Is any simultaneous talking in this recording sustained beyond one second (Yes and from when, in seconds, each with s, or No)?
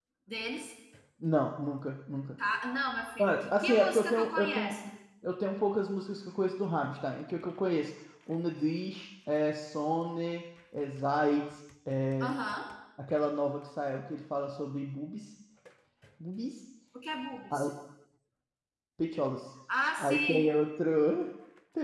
Yes, from 3.2 s